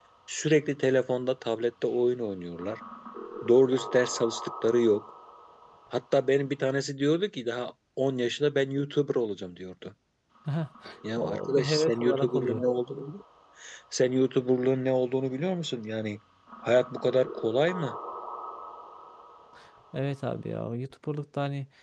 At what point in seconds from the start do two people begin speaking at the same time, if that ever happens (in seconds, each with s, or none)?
11.2 s